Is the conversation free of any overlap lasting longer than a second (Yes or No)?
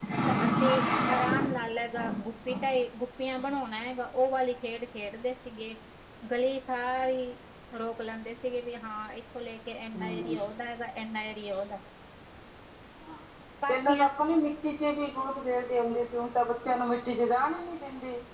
Yes